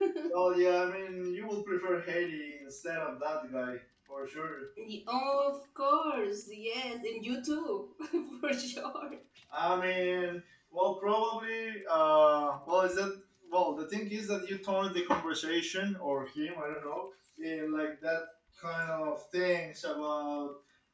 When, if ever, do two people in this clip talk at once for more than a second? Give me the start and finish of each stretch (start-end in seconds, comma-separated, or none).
none